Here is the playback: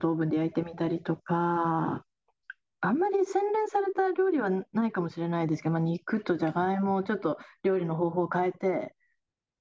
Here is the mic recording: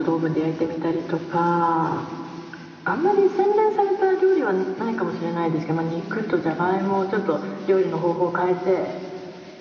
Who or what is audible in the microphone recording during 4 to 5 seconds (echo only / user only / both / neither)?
echo only